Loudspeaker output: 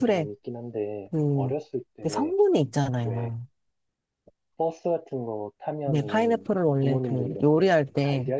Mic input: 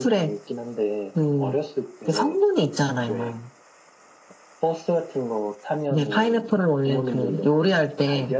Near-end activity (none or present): none